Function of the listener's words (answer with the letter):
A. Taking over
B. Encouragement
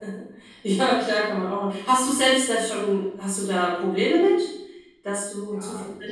A